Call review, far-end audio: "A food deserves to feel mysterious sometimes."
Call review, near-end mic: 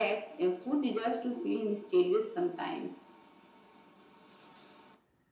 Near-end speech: none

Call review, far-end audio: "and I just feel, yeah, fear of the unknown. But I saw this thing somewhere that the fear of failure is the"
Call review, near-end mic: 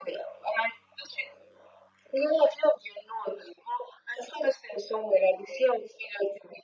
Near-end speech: none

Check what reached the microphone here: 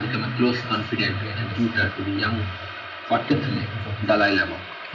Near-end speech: present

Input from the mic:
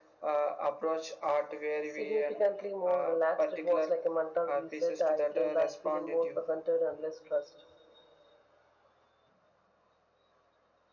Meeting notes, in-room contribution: none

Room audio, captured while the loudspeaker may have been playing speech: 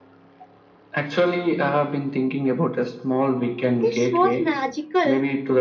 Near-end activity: present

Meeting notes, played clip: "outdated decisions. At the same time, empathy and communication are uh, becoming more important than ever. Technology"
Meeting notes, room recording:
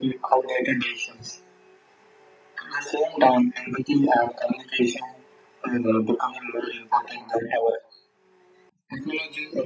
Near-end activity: none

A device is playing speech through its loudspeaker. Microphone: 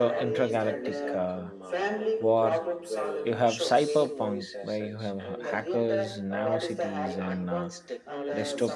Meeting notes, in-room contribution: present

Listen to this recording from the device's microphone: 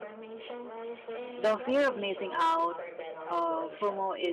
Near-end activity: present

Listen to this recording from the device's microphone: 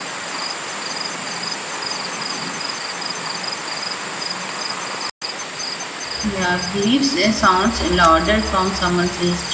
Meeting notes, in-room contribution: present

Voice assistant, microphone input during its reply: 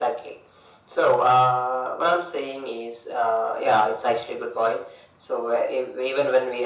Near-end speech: none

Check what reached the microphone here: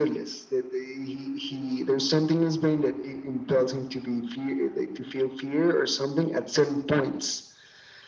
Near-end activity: none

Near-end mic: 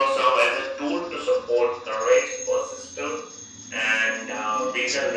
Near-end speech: none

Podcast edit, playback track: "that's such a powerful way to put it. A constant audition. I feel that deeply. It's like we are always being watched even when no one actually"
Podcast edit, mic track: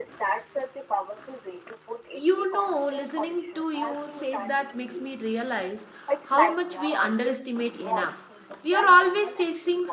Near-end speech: present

